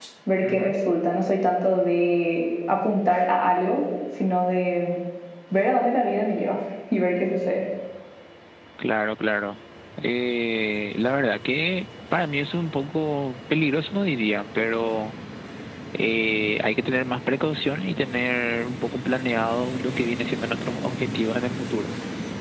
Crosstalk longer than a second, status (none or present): none